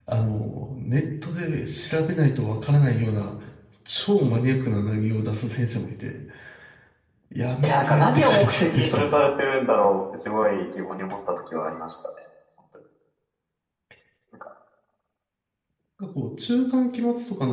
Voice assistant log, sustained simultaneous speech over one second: present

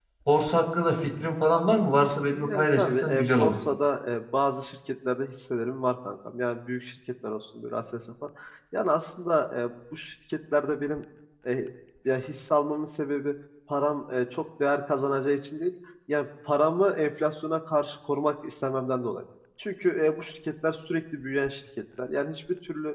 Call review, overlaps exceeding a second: present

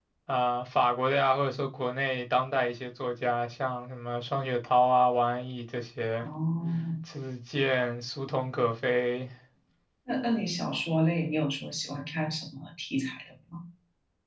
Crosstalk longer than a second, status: none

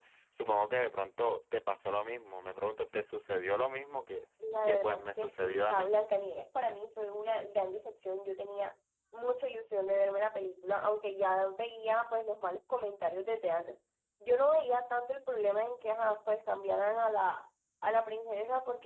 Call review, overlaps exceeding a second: present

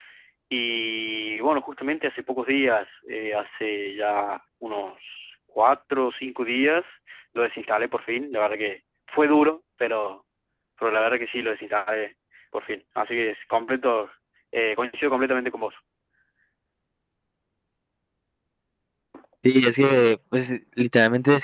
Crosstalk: none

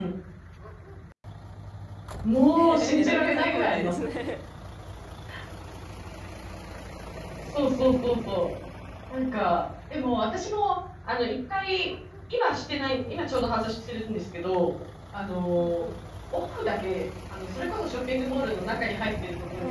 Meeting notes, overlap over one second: present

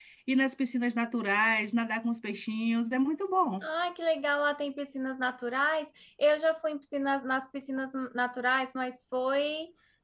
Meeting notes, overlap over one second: none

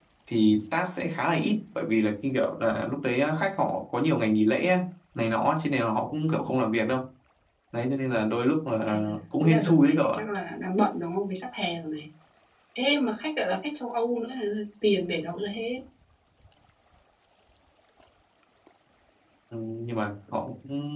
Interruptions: present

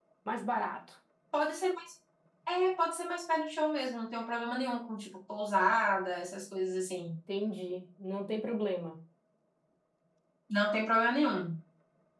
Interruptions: none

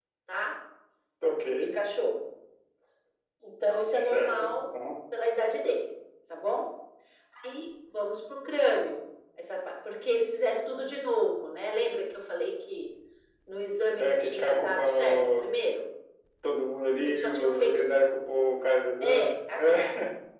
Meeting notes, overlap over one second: present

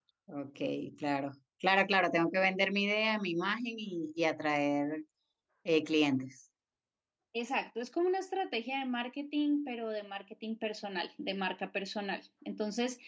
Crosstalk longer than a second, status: none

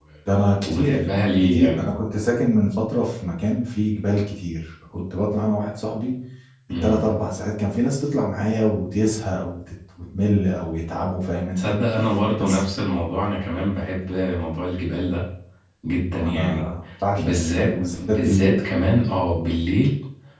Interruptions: present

